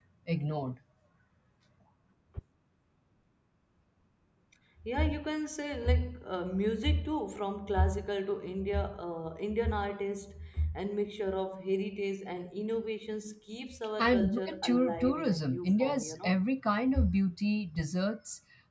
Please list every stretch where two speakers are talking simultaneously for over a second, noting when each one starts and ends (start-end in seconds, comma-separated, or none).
14.0-16.3